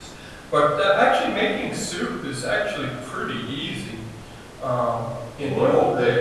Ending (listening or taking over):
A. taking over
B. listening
A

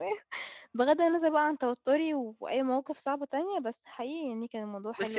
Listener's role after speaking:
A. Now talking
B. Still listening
A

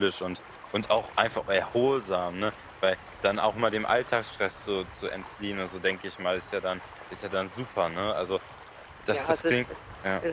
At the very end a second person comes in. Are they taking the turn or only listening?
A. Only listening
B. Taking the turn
B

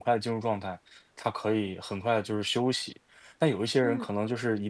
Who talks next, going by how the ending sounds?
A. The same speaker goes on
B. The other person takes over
A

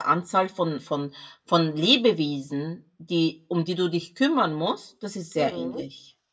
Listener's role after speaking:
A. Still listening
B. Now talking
B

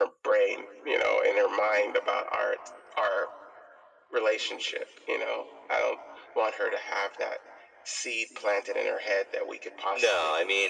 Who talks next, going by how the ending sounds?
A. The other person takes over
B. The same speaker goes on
A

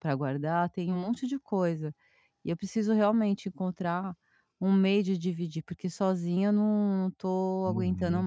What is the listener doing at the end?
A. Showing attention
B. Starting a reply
B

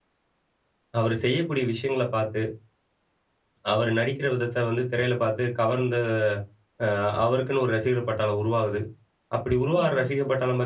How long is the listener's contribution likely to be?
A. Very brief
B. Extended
A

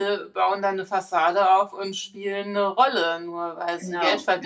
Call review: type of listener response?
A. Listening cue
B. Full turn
A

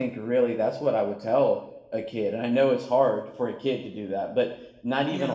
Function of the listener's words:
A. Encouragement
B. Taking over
A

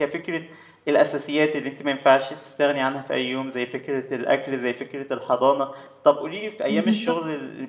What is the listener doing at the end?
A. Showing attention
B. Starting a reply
A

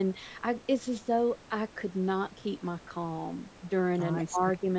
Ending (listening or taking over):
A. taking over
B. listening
B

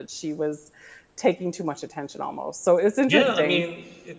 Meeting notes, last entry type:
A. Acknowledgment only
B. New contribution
B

